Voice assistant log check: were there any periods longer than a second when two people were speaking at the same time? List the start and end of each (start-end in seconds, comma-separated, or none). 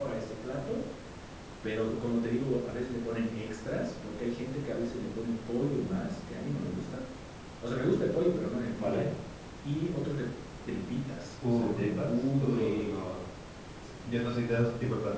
11.5-13.0